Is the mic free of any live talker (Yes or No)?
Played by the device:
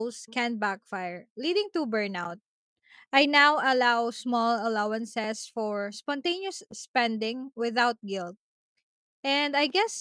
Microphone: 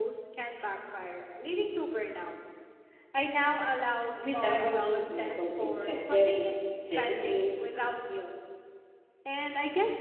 No